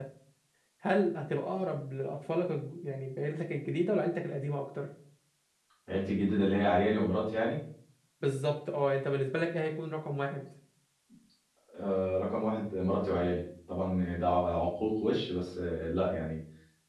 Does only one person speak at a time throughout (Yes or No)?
Yes